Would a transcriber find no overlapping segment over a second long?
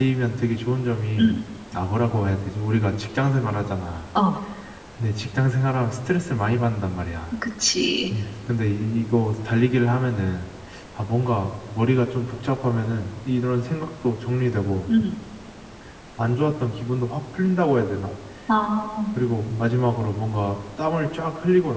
Yes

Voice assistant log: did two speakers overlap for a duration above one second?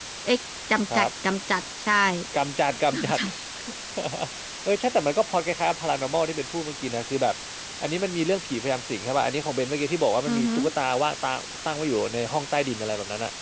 No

